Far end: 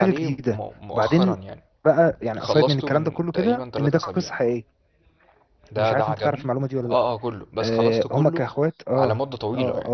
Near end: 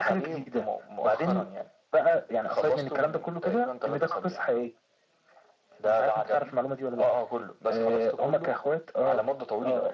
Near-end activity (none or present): none